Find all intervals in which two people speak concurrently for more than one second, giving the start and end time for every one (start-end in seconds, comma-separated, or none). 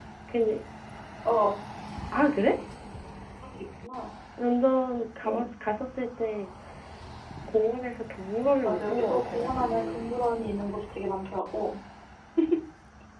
8.7-10.1